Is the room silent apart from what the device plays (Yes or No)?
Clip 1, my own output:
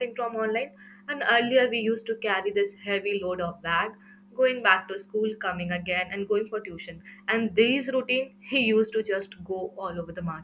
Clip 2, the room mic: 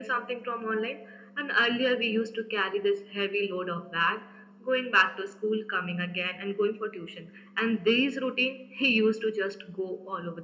Yes